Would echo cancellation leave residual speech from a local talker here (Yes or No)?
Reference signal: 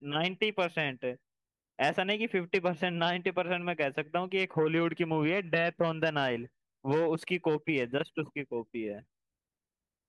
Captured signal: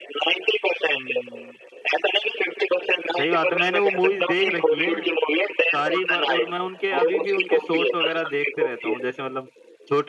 Yes